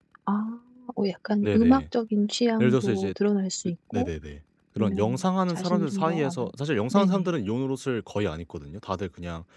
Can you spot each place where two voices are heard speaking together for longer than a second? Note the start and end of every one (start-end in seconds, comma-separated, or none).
4.8-6.5